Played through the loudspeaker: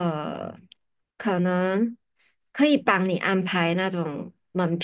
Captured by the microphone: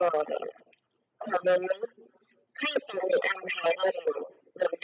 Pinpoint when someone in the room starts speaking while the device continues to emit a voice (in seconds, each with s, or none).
none